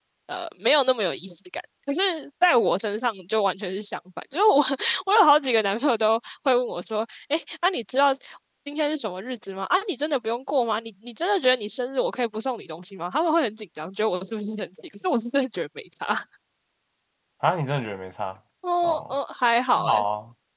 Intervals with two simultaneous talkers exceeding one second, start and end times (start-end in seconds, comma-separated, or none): none